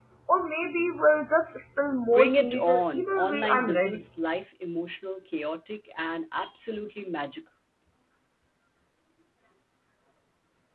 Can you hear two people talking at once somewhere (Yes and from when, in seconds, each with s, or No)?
Yes, from 2.1 s